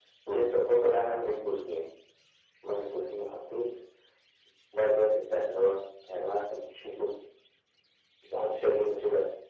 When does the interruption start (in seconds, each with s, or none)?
none